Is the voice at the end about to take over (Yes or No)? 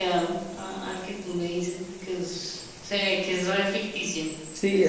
Yes